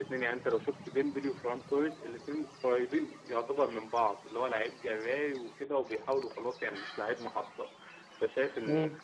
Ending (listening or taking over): listening